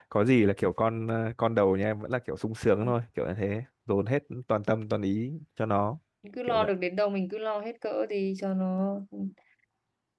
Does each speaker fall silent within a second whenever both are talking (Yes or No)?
Yes